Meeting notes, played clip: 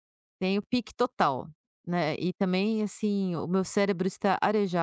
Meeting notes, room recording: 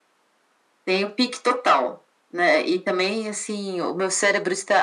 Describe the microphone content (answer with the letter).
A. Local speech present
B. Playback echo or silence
B